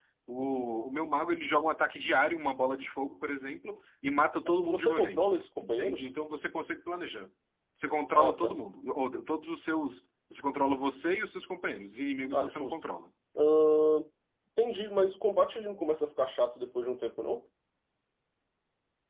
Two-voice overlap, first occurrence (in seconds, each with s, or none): 4.7 s